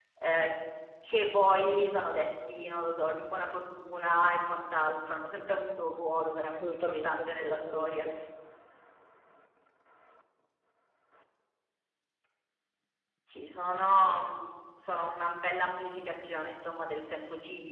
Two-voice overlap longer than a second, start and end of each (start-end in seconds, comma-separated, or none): 6.4-8.1